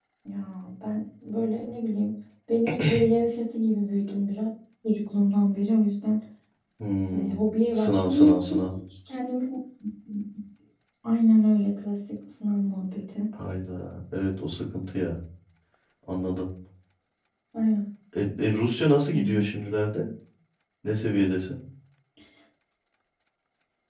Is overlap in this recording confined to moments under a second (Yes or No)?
No